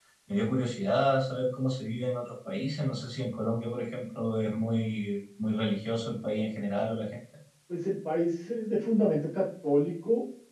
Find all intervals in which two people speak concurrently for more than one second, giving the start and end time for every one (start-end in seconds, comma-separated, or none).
none